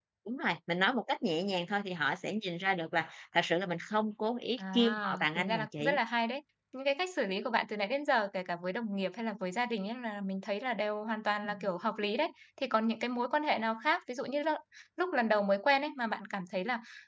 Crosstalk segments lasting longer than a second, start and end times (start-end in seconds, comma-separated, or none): 4.6-6.0